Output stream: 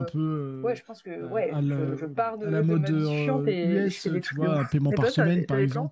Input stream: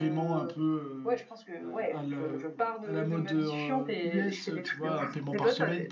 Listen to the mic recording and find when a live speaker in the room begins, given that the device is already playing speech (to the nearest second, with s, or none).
none